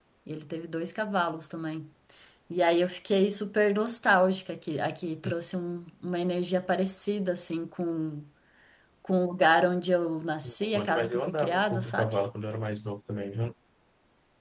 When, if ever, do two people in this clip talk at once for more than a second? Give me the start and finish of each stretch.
10.7-12.2

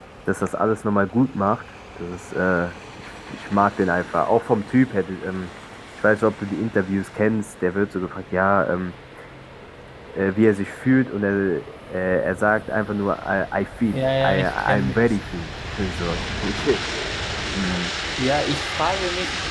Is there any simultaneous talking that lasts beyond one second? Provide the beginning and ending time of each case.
13.9-15.2

